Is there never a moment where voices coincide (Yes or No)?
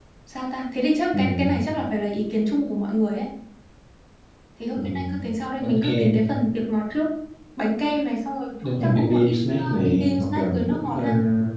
No